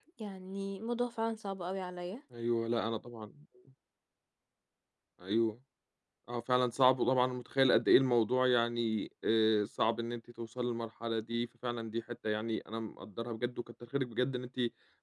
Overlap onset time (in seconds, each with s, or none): none